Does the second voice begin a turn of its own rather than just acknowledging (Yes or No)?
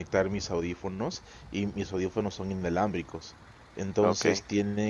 No